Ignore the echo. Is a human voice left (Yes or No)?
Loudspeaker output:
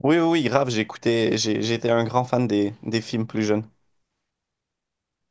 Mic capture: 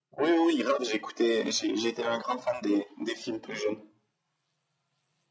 No